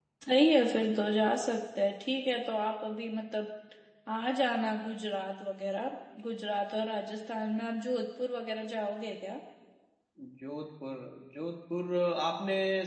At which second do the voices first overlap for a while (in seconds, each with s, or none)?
none